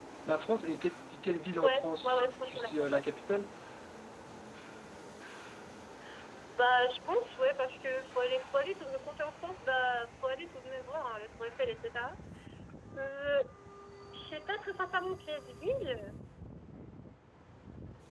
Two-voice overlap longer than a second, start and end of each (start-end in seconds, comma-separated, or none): 1.6-3.0